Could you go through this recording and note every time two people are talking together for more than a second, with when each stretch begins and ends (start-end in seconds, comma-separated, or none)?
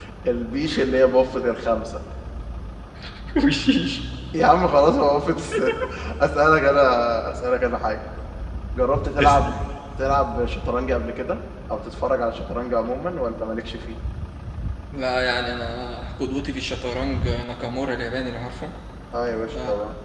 none